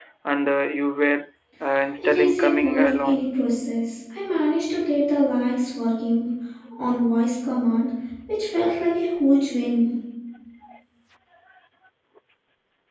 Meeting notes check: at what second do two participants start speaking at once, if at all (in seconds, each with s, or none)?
2.0 s